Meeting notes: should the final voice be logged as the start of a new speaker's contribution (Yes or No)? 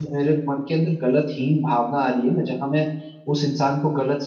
No